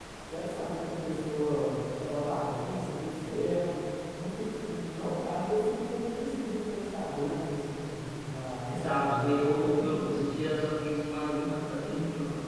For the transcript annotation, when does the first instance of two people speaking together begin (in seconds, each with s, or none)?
8.7 s